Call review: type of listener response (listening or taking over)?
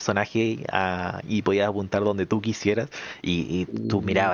listening